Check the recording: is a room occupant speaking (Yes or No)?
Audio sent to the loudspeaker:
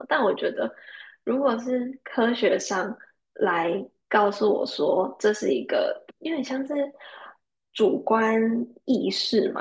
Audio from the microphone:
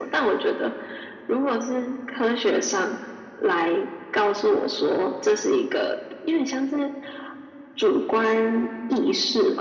No